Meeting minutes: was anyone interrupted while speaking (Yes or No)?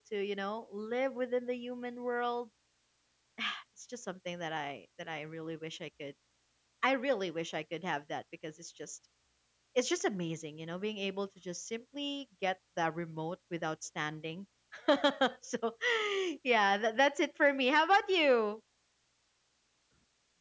No